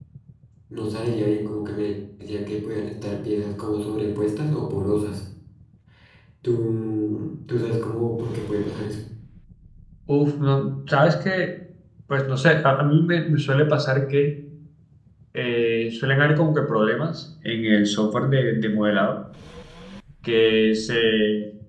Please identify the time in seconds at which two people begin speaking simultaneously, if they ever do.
none

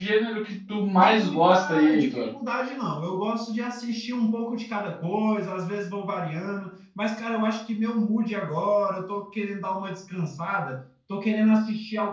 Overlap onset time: 1.0 s

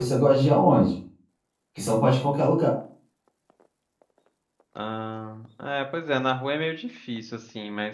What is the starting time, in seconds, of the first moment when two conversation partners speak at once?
none

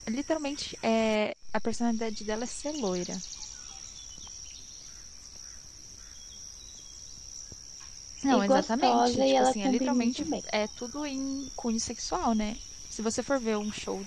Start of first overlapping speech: 8.3 s

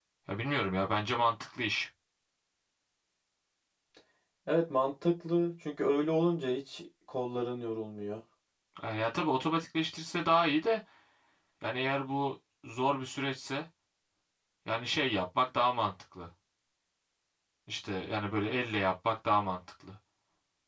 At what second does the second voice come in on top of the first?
none

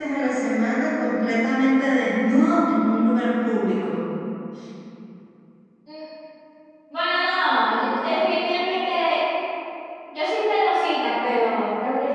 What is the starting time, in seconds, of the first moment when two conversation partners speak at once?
none

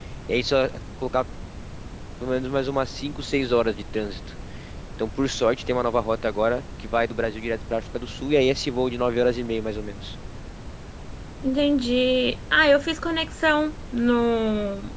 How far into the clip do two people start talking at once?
none

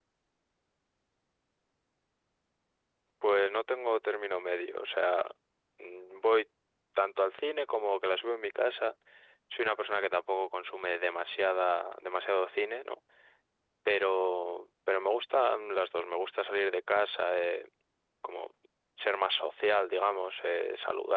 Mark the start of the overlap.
none

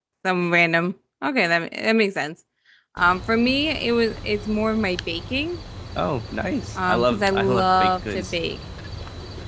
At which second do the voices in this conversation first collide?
6.8 s

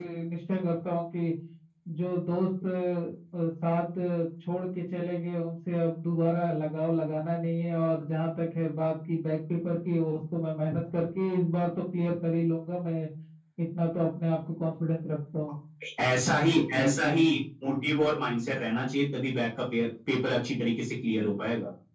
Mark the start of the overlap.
none

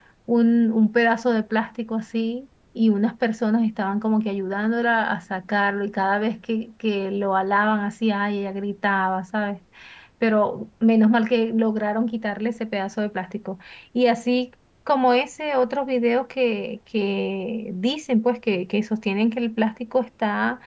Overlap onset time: none

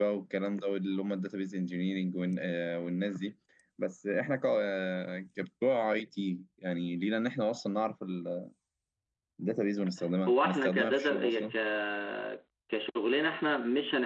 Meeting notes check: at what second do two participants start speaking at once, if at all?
10.3 s

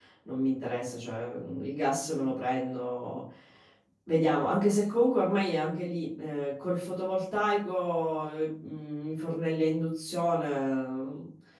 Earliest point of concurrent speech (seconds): none

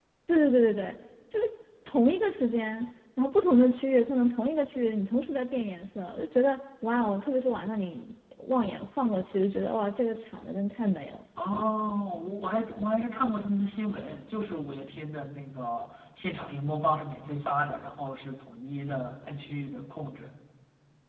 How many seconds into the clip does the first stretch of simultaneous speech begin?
none

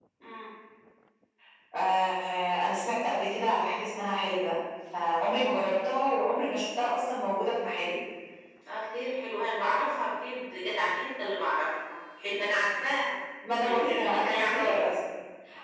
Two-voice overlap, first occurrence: 13.6 s

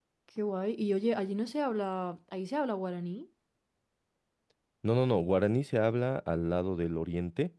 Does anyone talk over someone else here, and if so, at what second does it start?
none

